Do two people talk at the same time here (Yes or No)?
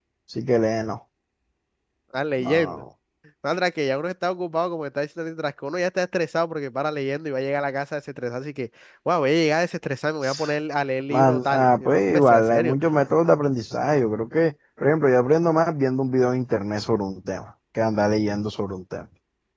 Yes